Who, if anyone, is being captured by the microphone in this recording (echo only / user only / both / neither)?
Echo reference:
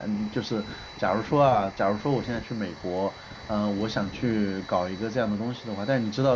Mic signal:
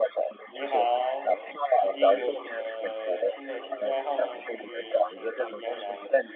both